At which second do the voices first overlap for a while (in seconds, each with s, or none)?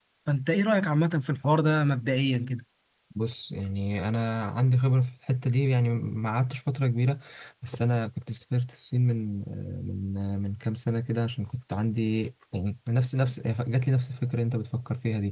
none